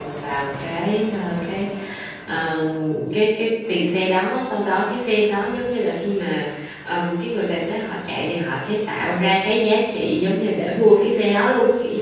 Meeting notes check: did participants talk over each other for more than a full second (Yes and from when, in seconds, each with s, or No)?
No